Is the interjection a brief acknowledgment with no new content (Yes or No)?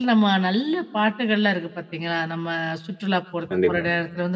Yes